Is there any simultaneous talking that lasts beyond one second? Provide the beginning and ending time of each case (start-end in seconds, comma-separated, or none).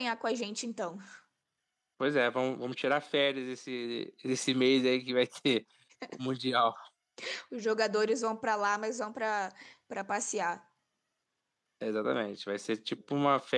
none